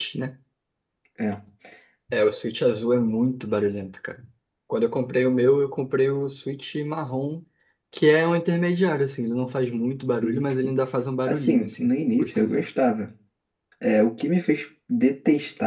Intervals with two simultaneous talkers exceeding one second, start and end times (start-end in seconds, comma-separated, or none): 11.3-12.6